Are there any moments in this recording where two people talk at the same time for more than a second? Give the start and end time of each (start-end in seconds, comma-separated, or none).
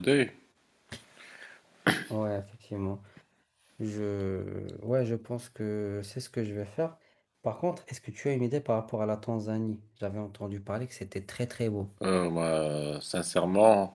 none